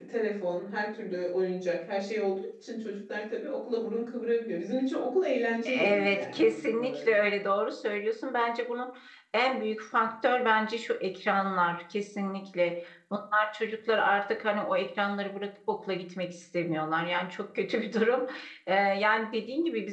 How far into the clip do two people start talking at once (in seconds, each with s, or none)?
5.7 s